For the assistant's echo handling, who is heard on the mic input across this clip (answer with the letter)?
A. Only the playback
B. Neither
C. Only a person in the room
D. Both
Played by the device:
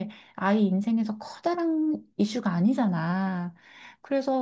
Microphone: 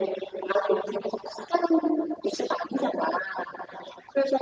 A